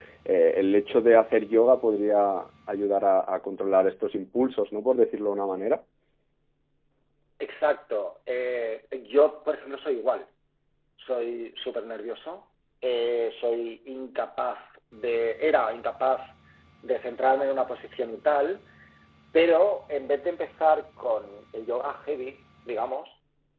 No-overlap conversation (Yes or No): Yes